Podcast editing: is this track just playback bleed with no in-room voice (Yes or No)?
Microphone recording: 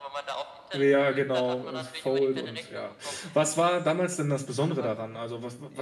No